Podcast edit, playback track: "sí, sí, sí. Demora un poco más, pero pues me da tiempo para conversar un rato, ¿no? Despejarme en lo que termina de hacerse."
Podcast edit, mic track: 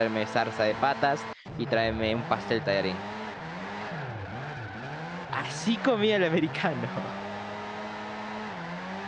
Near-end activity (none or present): present